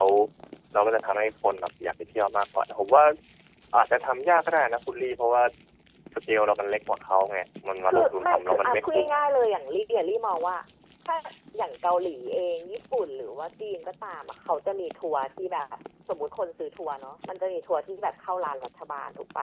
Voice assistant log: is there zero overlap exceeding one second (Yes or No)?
No